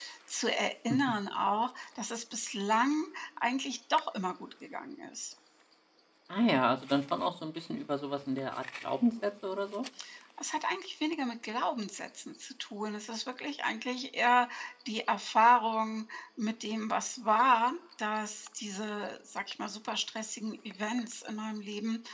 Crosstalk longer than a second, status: none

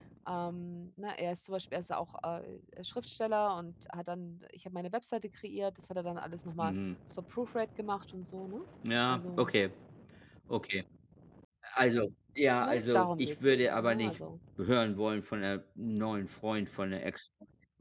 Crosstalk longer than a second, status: present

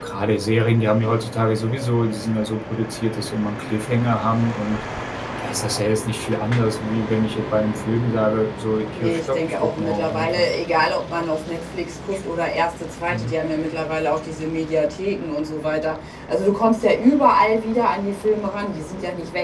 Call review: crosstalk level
present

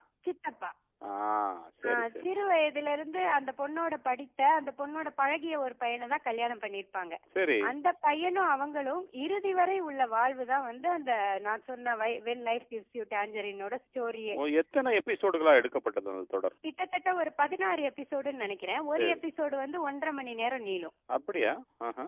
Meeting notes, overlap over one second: none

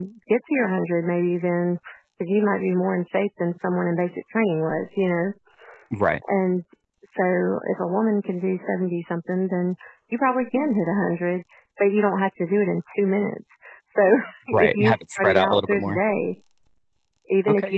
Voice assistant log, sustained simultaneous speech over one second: present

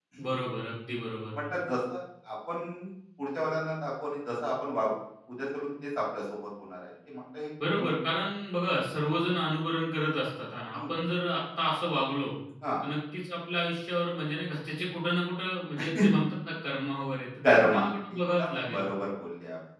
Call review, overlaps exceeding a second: present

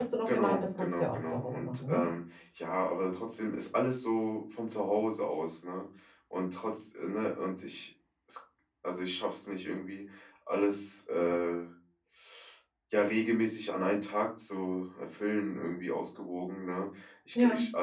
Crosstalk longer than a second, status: present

